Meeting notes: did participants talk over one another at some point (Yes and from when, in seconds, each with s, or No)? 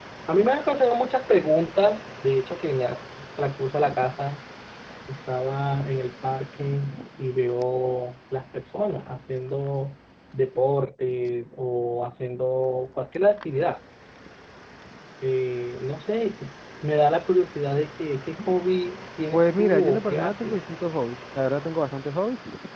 Yes, from 19.3 s